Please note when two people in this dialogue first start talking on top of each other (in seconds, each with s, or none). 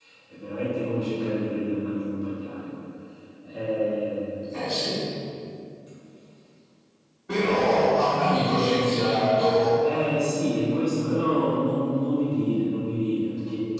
none